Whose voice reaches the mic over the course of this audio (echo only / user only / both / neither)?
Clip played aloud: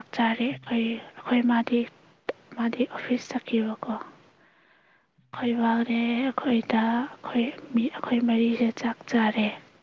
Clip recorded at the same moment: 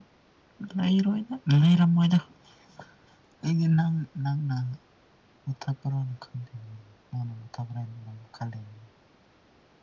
user only